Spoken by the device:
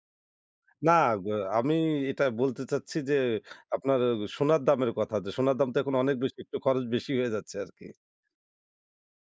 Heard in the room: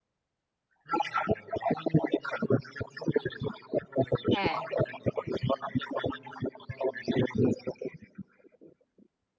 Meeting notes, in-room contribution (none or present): present